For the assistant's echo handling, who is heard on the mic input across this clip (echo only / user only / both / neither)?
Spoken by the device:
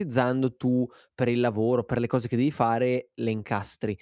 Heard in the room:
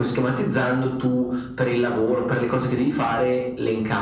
echo only